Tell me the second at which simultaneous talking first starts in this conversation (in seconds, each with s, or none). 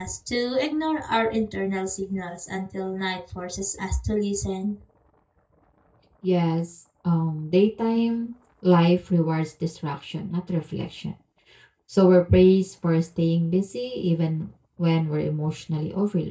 none